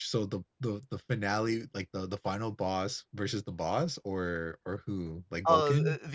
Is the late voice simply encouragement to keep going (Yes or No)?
No